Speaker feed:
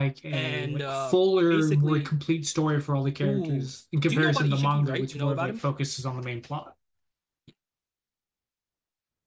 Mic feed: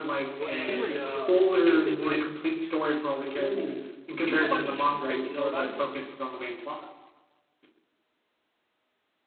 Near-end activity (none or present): present